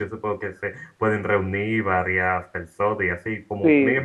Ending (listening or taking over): listening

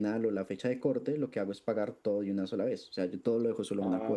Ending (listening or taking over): taking over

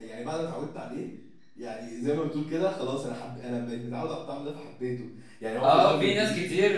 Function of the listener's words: taking over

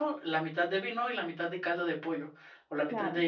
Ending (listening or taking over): listening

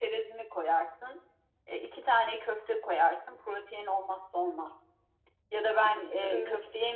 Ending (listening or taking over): listening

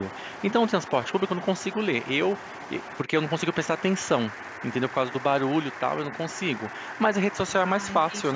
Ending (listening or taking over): listening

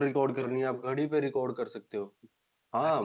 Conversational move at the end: taking over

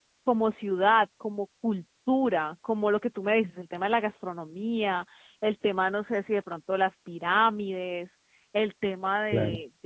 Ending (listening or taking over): listening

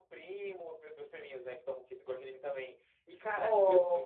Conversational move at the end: listening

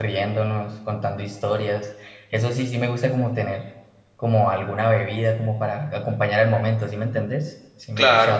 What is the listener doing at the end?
taking over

